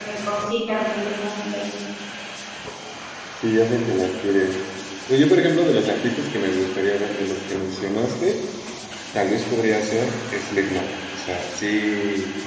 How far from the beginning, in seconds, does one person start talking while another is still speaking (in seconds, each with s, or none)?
none